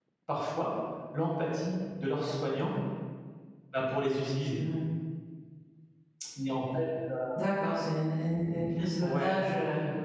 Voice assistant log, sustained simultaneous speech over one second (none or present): none